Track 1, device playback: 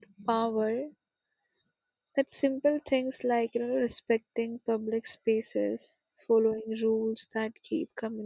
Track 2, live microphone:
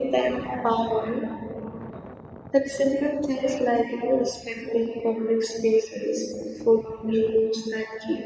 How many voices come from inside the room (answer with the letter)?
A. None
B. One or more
A